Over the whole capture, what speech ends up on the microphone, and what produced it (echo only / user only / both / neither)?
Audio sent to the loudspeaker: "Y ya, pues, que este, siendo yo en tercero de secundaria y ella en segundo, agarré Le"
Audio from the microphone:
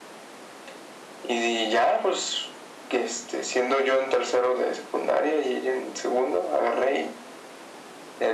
echo only